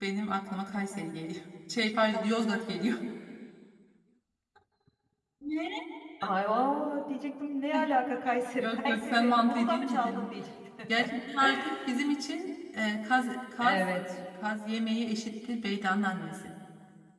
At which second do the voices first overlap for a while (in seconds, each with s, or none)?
8.6 s